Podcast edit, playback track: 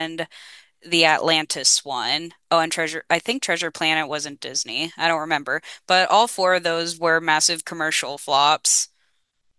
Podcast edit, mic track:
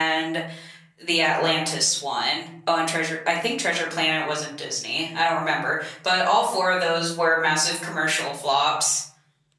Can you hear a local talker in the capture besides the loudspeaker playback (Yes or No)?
No